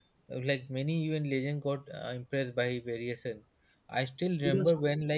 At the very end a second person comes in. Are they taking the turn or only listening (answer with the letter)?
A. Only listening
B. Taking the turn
A